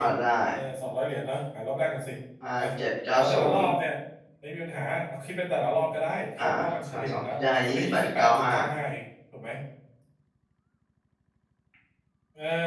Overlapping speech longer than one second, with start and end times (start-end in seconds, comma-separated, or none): 6.9-8.5